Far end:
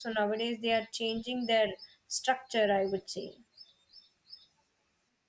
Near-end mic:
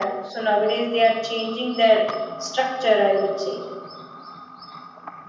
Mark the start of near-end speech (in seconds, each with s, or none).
none